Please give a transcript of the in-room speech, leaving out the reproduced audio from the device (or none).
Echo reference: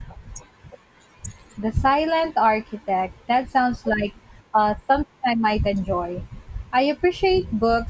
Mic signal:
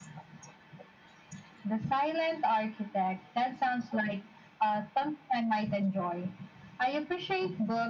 none